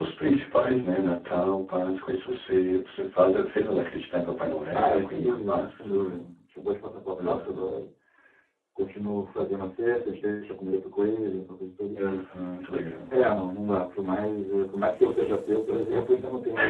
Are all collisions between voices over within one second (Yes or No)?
No